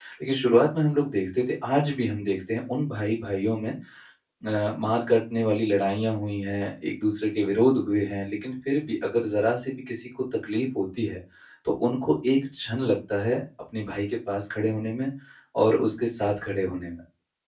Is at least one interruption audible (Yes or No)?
No